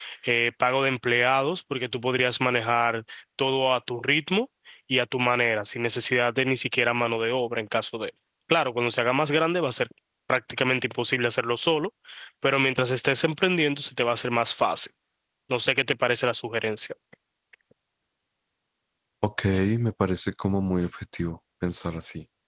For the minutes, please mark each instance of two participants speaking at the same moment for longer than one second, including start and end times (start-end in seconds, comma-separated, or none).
none